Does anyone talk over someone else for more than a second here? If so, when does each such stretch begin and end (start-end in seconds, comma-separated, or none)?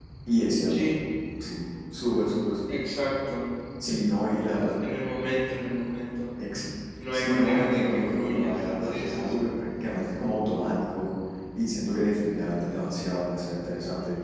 7.1-9.5